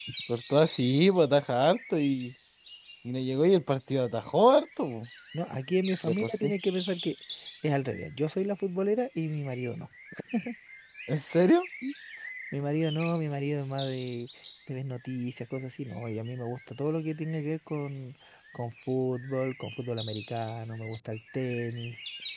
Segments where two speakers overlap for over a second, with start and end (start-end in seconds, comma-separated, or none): none